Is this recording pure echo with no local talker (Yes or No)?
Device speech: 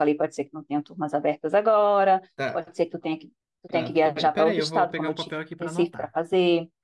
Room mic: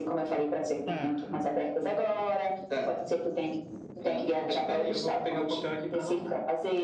No